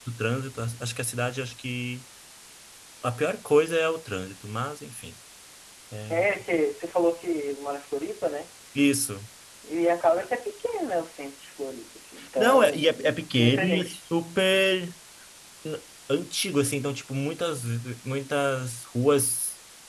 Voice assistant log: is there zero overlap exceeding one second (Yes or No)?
No